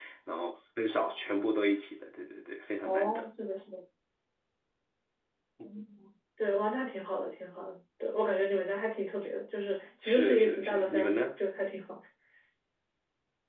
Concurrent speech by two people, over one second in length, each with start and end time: 10.0-11.3

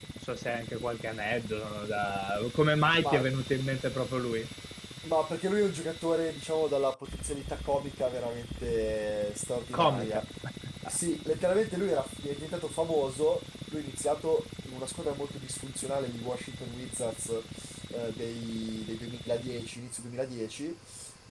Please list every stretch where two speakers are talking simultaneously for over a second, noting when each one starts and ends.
none

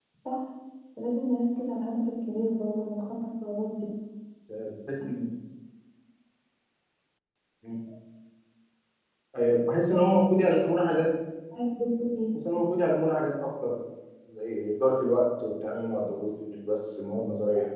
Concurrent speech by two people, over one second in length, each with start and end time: none

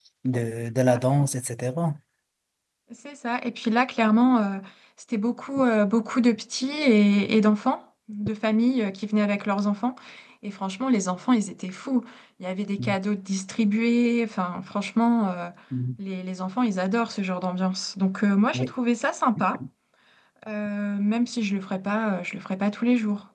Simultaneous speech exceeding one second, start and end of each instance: none

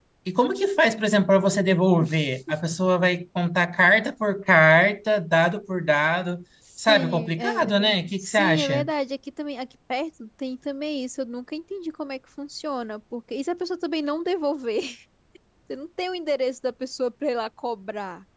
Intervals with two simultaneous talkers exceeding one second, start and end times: 6.8-8.9

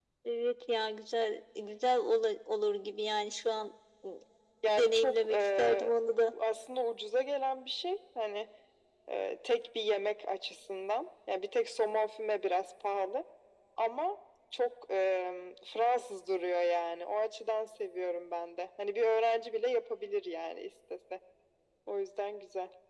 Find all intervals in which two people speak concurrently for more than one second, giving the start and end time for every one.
4.7-5.9

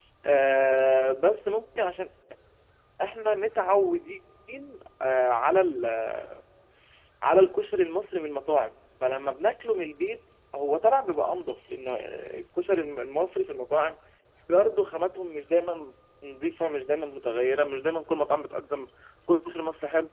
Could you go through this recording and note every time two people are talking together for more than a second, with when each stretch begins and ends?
none

